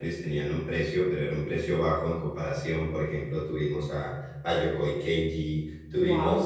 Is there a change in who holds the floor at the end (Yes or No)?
No